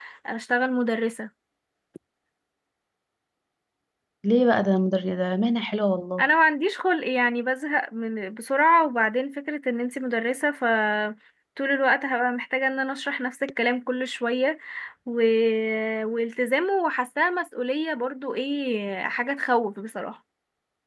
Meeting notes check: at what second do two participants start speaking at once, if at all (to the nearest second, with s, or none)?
none